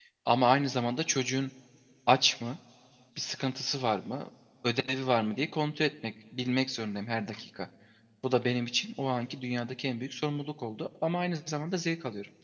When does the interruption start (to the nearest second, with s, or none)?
none